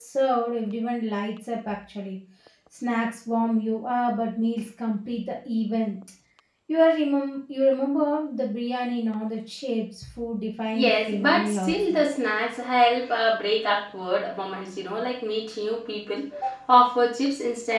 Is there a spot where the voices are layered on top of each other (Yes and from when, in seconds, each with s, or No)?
Yes, from 10.7 s